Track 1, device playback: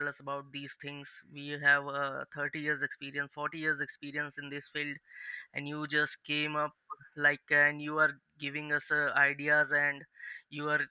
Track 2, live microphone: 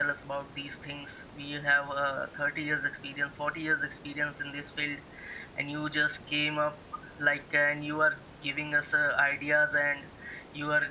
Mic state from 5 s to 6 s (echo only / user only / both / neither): echo only